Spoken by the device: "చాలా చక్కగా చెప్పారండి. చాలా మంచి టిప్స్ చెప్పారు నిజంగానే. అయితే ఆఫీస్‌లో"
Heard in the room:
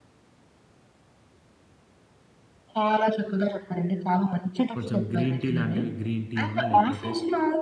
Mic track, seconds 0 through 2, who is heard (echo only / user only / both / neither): neither